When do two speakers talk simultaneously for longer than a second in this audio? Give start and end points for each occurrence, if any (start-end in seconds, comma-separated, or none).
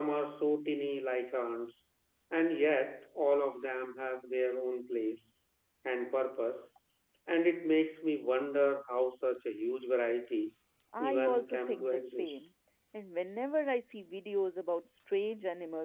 11.0-12.4